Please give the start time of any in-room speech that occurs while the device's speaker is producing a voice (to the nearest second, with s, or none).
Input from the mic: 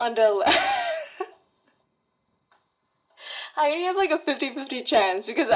none